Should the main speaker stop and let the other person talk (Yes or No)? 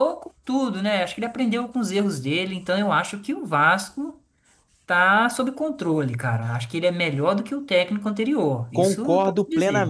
Yes